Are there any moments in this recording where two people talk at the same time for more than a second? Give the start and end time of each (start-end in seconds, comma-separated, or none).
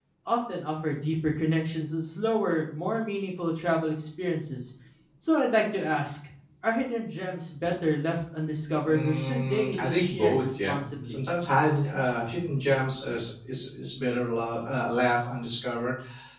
8.8-11.2